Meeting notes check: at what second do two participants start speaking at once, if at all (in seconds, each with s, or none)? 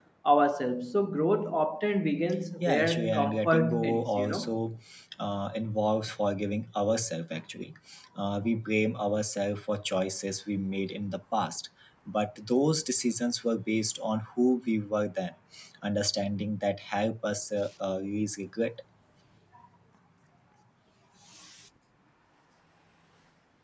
2.6 s